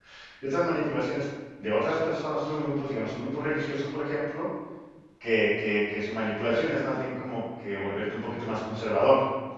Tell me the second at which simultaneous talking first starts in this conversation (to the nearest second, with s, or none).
none